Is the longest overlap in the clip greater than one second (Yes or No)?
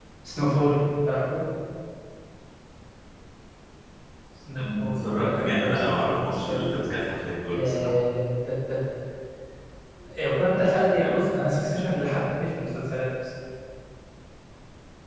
Yes